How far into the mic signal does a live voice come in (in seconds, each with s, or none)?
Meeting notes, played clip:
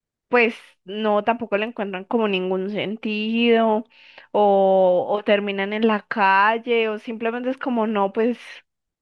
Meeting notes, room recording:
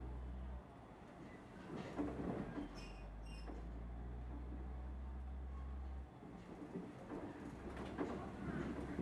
none